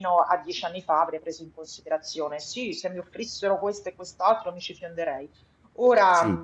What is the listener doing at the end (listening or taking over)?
listening